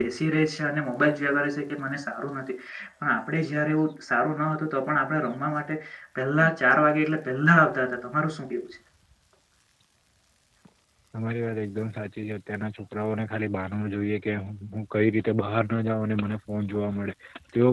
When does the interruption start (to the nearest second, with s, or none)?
none